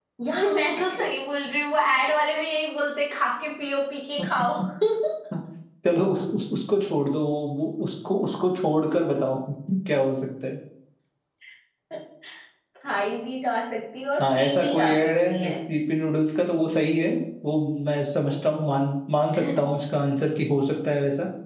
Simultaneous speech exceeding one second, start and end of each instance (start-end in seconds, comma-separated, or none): 14.2-15.5